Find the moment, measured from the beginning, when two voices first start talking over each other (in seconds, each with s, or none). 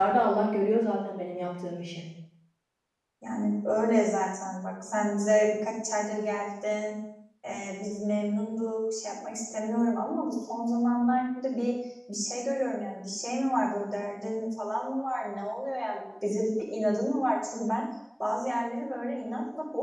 none